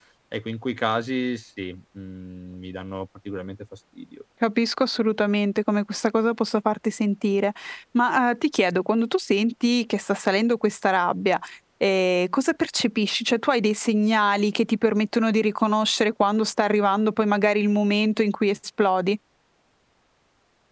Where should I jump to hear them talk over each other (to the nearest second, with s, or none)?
none